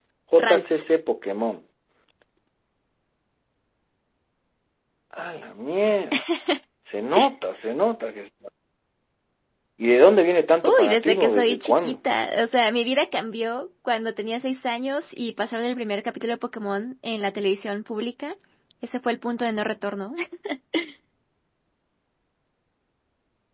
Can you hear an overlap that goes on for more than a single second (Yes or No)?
Yes